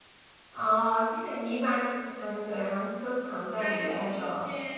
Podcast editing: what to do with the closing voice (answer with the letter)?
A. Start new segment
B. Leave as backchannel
A